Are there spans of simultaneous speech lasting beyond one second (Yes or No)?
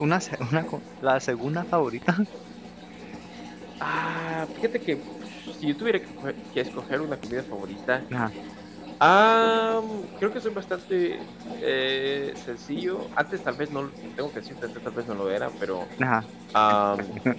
No